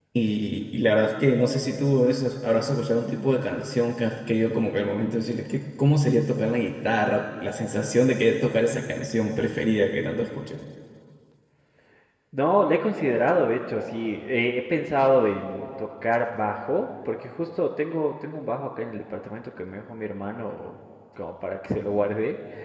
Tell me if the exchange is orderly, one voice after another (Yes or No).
Yes